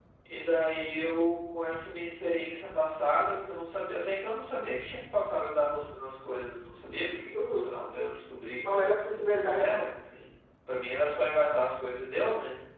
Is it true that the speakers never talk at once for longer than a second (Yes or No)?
Yes